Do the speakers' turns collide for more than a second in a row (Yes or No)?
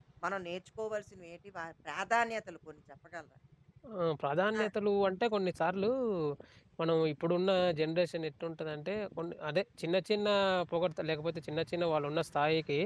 No